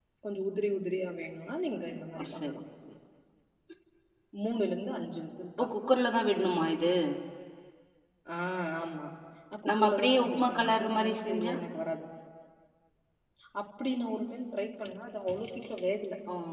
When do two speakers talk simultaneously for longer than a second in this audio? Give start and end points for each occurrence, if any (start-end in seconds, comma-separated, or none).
9.7-11.5